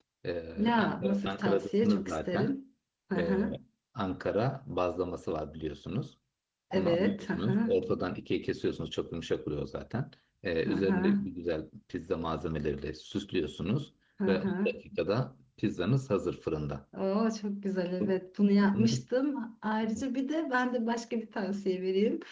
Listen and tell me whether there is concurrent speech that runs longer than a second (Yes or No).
Yes